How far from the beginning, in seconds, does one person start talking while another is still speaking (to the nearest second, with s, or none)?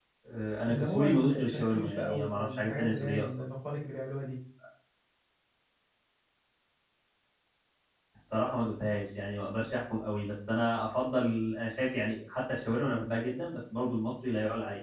1 s